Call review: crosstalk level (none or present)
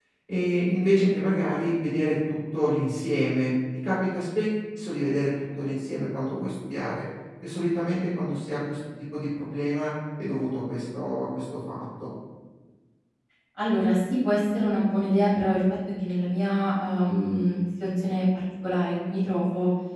none